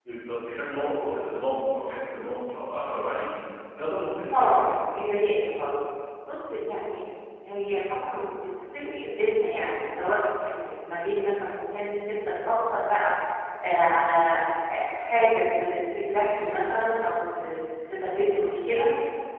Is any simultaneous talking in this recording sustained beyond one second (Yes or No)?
No